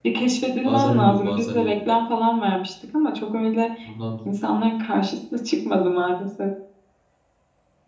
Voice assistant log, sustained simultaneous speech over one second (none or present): present